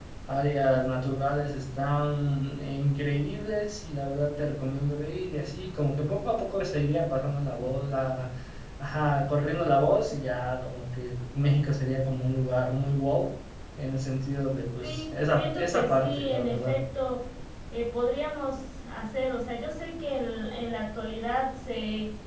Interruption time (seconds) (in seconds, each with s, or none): 14.8 s